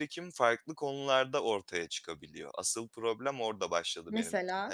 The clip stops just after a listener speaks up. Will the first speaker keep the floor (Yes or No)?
Yes